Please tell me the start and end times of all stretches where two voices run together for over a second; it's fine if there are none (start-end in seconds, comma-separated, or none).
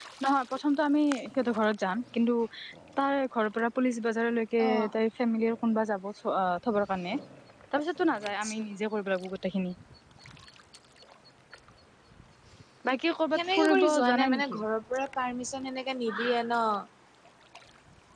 13.4-14.6